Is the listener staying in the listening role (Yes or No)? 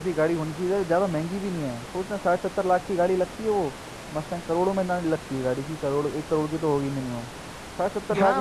No